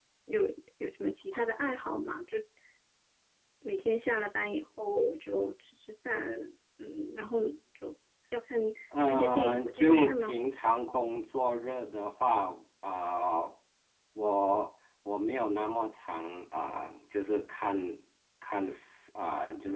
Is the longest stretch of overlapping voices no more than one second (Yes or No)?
No